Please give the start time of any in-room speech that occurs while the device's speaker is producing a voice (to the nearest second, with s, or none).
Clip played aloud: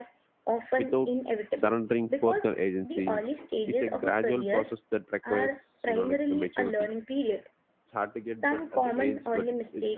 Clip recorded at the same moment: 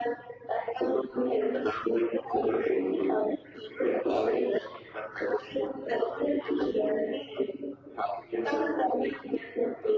none